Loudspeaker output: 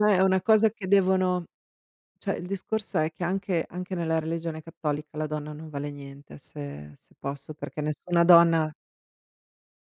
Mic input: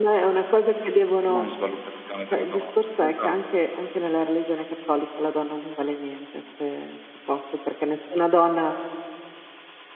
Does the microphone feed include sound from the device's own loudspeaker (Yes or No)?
Yes